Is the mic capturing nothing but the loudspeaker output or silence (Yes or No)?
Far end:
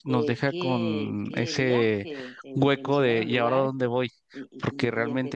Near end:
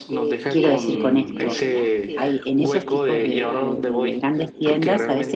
No